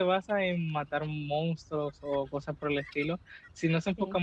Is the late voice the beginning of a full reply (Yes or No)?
No